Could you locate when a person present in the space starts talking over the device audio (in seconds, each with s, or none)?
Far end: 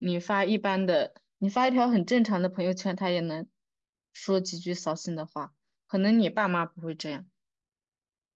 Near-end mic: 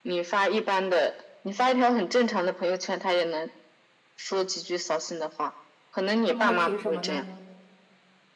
6.2 s